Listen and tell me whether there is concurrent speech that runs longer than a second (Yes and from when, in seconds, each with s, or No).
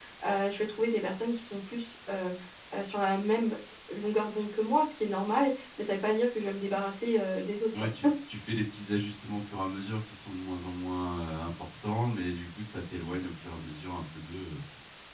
No